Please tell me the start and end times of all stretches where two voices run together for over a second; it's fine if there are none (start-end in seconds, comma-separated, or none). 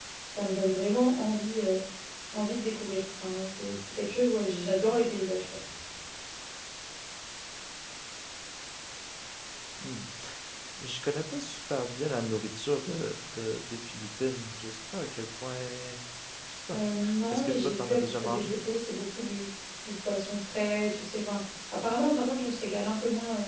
17.3-18.6